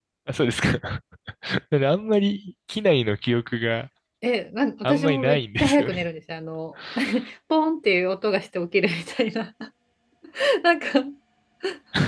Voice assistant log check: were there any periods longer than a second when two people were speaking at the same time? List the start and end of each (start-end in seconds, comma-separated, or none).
4.8-6.1